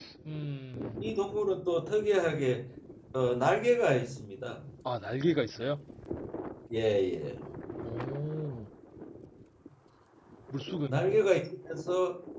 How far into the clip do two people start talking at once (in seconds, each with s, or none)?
none